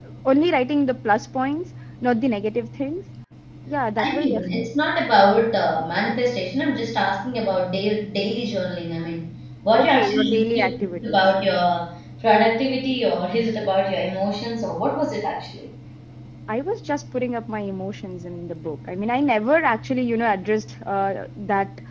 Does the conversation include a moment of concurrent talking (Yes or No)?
Yes